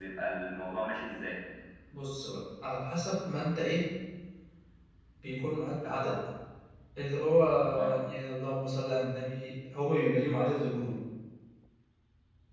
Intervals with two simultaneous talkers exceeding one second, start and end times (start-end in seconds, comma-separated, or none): none